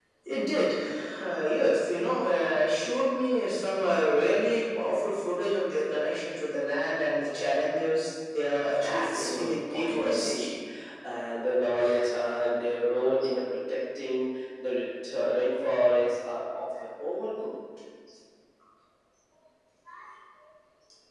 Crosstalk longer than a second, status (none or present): present